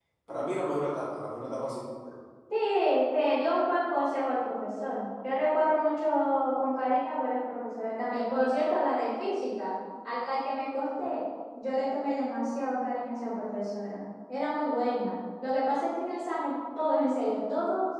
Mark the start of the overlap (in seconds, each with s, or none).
none